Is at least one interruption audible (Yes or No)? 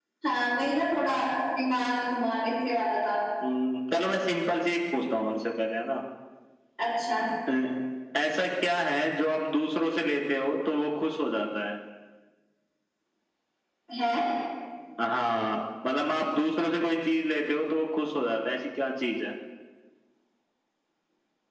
No